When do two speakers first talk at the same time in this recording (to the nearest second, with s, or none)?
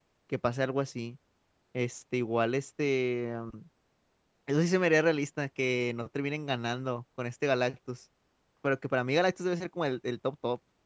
none